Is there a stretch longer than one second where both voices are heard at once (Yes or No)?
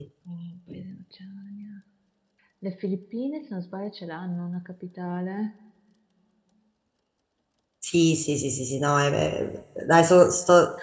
No